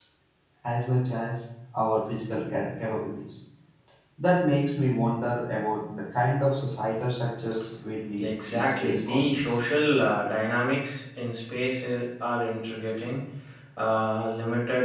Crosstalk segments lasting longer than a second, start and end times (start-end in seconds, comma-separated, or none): 8.2-9.5